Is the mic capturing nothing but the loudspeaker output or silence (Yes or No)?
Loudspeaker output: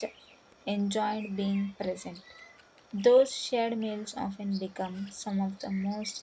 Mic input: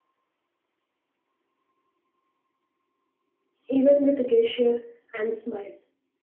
No